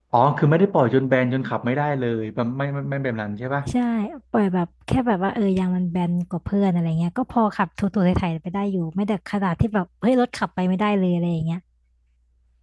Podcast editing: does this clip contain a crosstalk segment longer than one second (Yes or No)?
No